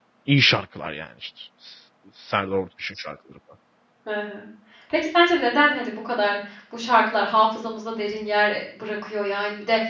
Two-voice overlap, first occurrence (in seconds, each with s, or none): none